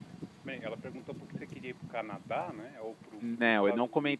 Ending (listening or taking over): taking over